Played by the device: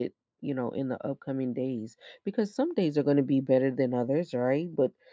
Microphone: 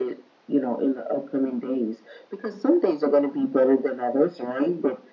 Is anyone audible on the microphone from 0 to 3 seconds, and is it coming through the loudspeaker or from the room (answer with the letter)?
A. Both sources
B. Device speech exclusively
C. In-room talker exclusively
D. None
B